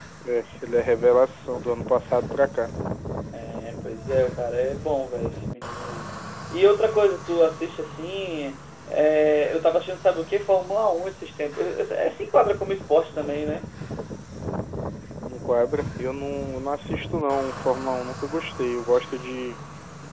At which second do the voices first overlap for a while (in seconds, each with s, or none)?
none